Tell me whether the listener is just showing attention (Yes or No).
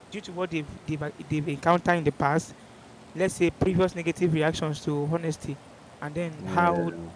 Yes